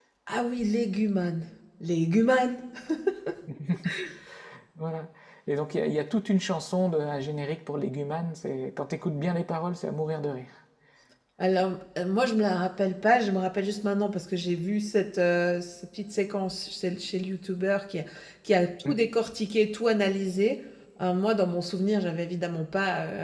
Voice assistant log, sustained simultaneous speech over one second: none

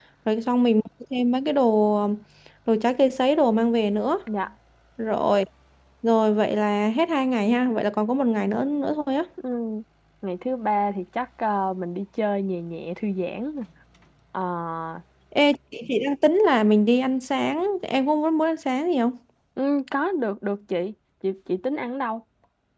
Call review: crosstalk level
none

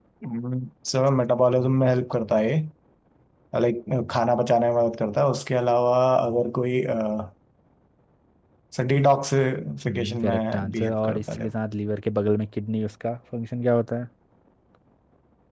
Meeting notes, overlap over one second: present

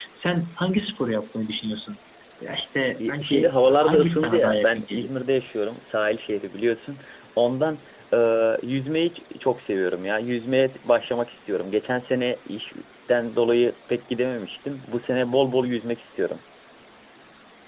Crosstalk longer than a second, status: present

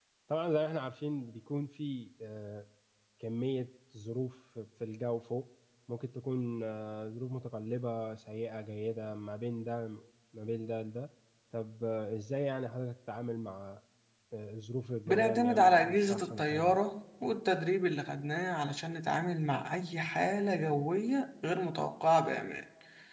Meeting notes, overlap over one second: present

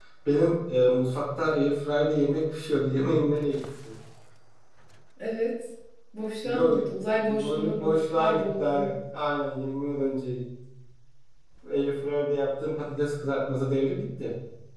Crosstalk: present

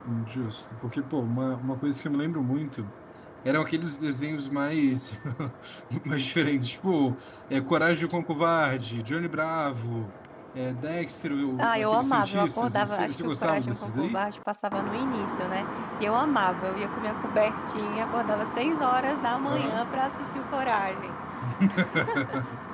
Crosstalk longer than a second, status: present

